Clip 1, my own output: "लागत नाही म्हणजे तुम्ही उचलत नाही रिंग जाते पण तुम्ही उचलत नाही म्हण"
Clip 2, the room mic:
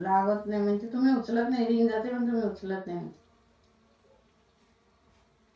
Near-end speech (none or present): none